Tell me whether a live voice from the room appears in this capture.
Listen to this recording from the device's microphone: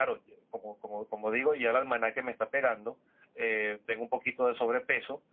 No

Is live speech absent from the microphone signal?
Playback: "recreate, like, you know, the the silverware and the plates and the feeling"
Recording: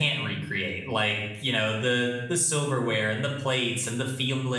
Yes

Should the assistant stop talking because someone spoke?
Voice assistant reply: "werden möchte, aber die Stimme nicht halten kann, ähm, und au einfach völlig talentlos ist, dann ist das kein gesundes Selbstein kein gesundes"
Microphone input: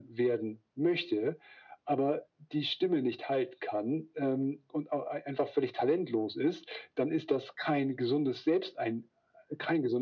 No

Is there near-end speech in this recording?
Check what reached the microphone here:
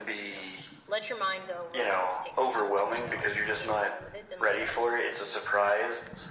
Yes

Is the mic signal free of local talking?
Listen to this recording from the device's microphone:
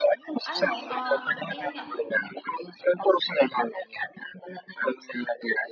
No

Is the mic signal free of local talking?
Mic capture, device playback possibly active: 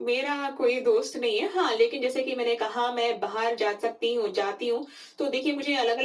Yes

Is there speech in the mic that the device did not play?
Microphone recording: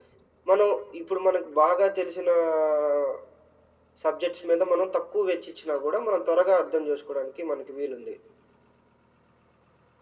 No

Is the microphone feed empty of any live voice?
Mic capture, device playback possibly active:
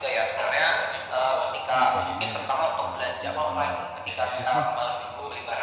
No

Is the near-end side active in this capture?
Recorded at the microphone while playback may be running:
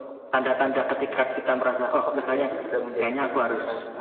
Yes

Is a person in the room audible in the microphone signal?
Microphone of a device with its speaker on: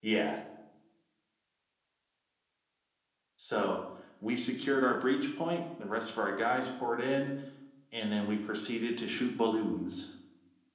No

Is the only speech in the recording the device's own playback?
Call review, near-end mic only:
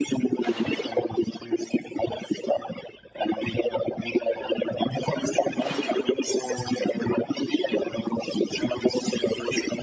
Yes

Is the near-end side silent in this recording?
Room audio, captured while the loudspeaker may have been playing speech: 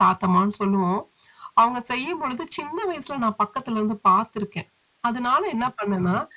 Yes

